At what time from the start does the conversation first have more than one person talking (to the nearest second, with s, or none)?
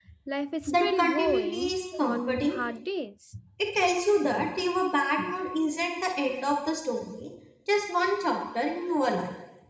1 s